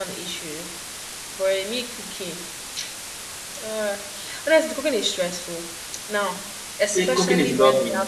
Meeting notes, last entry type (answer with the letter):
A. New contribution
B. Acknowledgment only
A